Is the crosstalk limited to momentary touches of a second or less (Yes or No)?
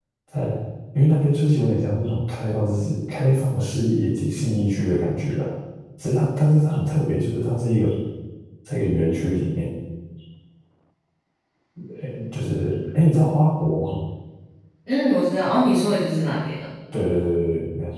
Yes